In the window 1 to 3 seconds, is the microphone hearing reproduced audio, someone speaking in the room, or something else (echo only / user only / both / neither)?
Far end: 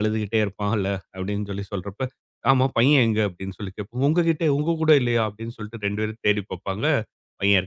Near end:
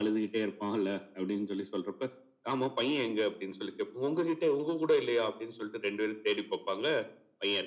echo only